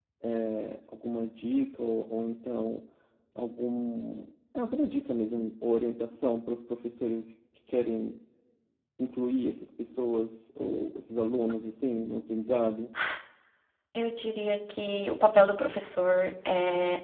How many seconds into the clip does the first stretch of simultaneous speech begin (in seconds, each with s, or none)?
none